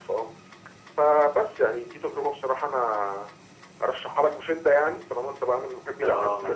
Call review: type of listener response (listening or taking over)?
taking over